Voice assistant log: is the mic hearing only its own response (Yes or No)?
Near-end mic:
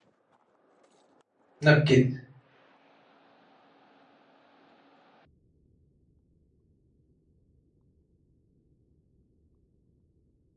No